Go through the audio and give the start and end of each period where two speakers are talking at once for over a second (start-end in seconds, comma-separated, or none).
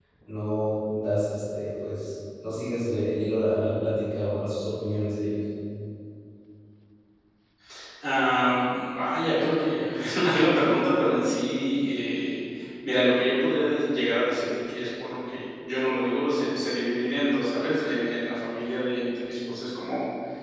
none